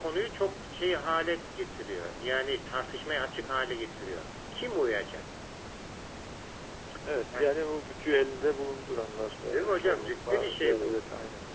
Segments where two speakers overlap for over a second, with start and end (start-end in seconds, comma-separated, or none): 9.5-11.0